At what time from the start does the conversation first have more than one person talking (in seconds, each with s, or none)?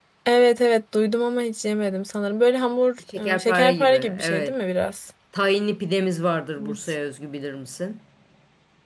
3.3 s